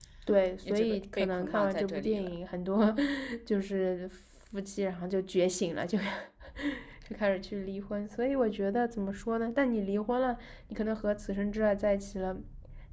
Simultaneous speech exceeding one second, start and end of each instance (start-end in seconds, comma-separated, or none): 0.7-2.3